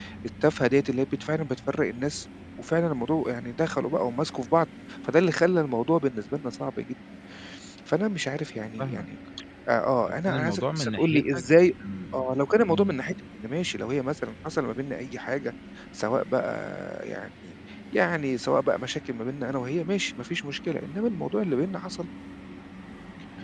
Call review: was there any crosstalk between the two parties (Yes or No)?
Yes